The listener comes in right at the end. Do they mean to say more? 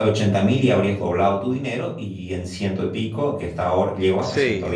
No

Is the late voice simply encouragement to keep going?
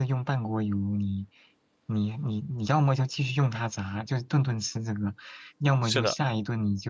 Yes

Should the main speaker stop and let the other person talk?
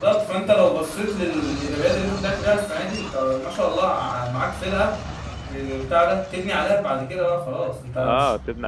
Yes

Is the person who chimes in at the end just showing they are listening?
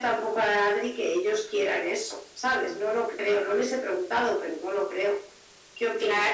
No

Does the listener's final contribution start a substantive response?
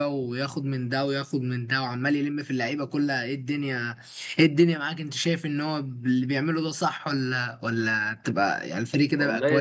Yes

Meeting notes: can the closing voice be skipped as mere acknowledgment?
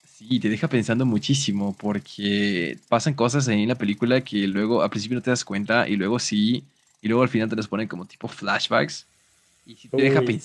Yes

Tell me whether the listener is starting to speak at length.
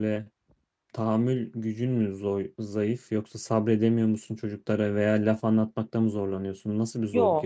Yes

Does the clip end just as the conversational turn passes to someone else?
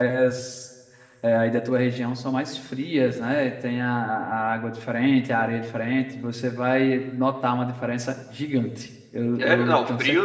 Yes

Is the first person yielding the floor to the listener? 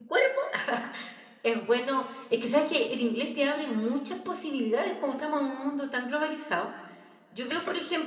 No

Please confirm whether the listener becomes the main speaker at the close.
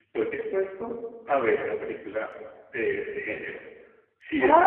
Yes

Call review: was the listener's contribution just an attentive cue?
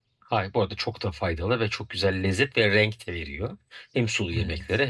Yes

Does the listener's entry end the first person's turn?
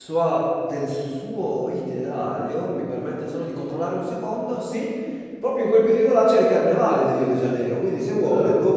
No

